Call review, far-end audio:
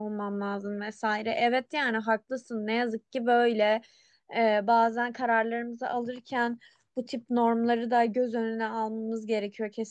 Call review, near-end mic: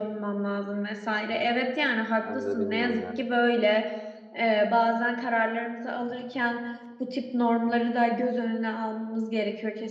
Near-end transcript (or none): Ben de bilmiyorum yani.